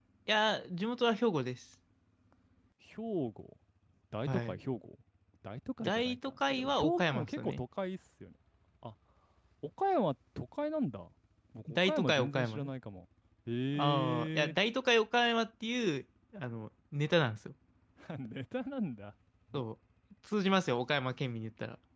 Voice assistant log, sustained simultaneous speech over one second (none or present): present